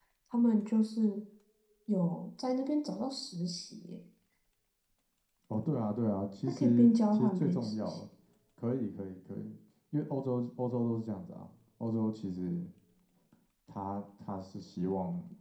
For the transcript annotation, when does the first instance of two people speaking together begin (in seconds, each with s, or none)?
6.5 s